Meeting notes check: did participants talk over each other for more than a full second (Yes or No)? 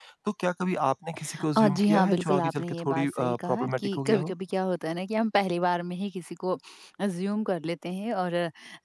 Yes